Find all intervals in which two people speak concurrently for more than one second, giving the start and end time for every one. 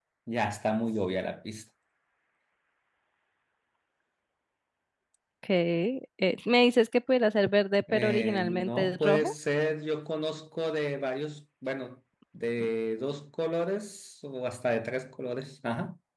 7.9-9.3

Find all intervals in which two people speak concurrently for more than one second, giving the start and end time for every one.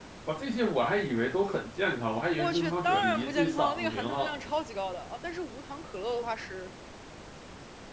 2.4-4.5

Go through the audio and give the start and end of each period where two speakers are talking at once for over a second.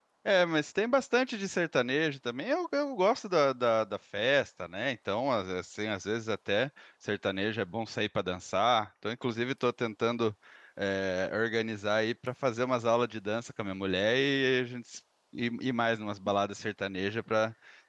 none

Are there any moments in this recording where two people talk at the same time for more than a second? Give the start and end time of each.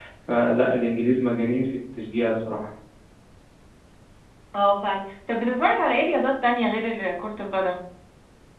none

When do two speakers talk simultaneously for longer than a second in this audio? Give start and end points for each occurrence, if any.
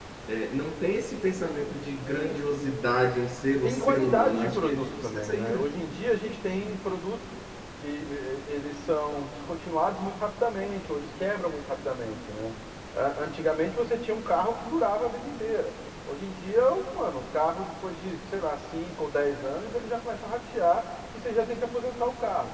3.6-5.7

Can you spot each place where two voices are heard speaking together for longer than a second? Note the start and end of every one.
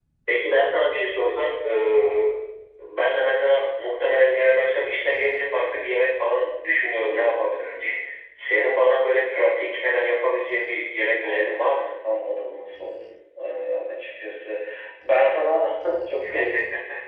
none

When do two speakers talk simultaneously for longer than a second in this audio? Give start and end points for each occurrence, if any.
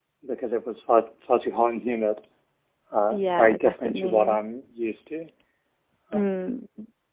3.1-4.4

